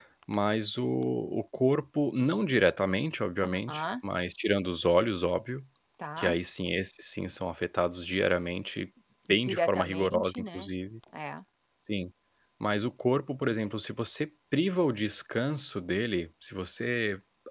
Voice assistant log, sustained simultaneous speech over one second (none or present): present